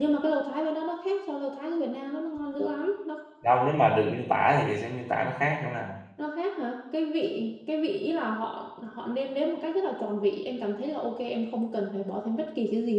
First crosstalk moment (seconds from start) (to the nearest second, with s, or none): none